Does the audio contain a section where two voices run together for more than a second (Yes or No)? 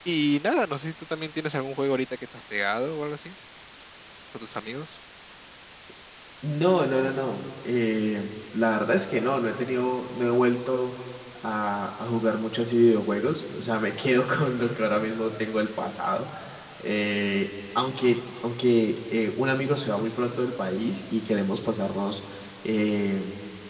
No